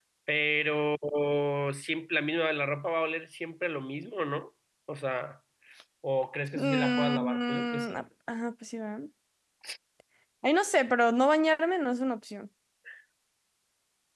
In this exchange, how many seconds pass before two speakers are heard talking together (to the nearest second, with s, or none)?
7 s